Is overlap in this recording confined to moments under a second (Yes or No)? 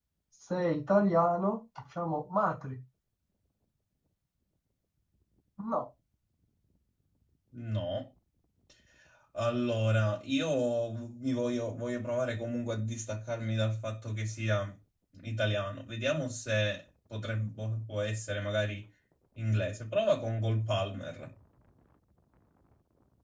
Yes